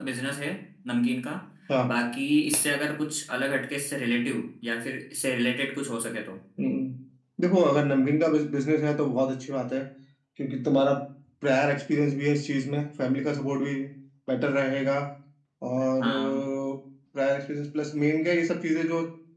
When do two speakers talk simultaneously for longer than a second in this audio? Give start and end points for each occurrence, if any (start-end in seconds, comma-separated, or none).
none